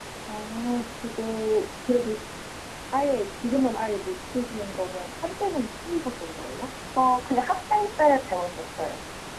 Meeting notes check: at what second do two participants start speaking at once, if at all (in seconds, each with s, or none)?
none